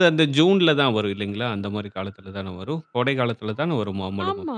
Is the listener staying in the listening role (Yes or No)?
No